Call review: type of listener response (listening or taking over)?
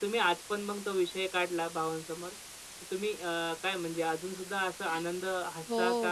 taking over